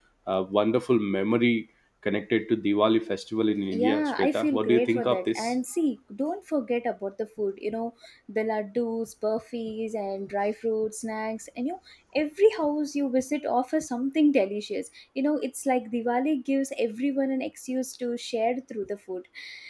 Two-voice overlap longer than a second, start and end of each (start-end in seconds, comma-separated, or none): 3.7-5.4